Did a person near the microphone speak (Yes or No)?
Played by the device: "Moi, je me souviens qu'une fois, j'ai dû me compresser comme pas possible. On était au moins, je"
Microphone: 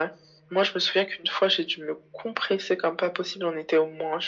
No